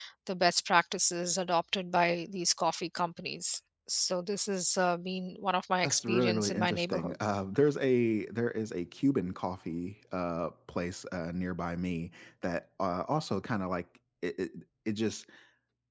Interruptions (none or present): present